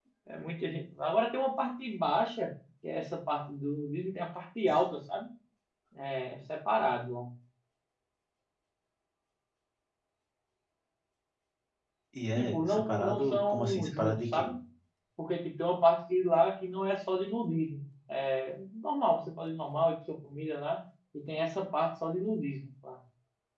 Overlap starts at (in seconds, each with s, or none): 12.3 s